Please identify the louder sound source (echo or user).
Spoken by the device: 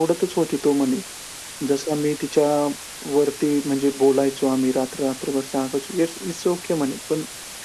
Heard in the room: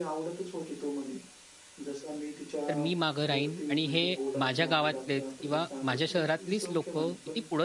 user